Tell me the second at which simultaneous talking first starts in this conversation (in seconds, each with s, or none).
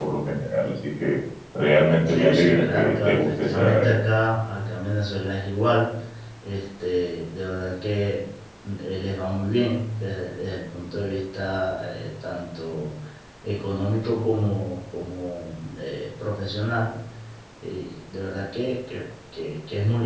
2.1 s